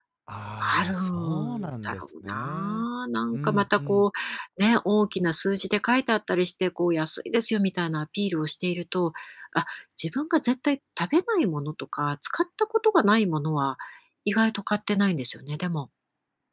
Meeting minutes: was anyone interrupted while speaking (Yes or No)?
Yes